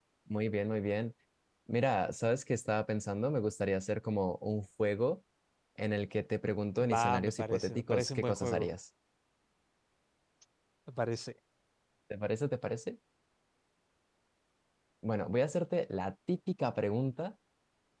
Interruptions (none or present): present